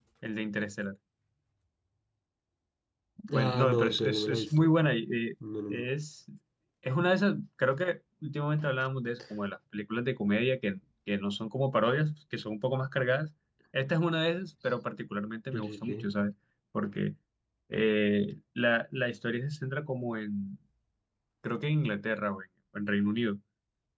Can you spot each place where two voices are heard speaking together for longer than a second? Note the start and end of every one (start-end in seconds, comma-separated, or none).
3.3-4.7